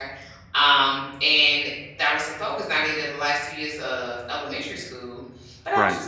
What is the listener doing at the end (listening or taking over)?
listening